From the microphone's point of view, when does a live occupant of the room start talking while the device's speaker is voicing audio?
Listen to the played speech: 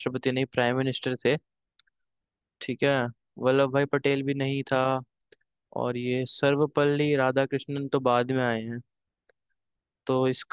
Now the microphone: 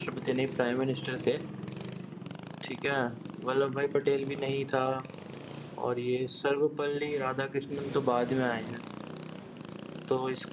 none

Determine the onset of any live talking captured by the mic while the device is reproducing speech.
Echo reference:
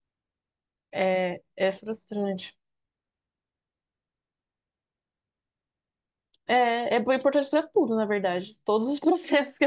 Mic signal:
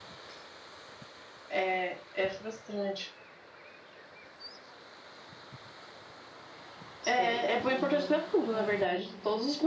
7.0 s

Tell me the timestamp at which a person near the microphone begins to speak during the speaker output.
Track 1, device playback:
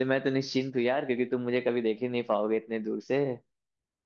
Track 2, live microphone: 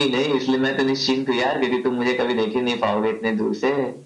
none

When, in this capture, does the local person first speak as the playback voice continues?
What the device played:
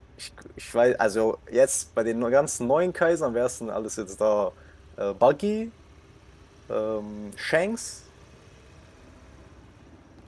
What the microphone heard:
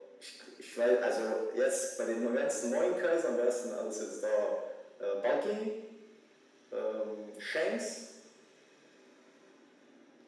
none

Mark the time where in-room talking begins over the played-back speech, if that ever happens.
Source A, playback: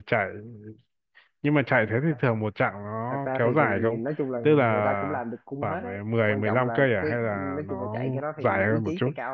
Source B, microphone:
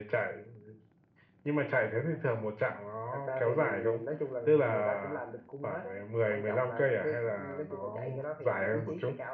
none

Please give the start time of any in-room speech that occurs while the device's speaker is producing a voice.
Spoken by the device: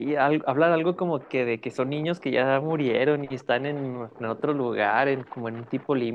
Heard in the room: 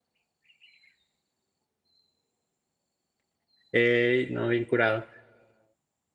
3.7 s

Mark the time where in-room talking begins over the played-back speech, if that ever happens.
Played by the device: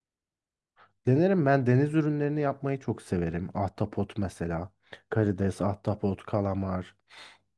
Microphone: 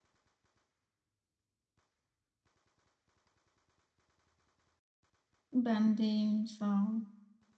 5.5 s

